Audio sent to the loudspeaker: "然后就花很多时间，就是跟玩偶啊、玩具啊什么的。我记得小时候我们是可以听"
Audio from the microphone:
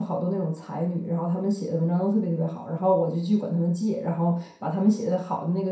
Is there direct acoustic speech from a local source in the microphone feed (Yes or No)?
Yes